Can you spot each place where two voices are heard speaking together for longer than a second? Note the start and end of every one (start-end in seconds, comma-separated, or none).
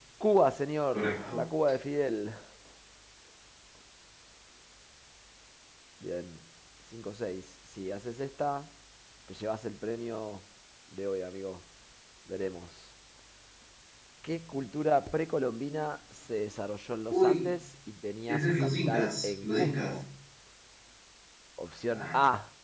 18.3-20.0